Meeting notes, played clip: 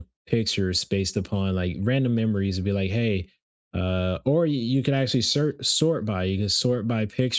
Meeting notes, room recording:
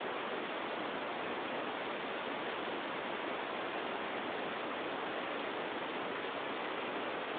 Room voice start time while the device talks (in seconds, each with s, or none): none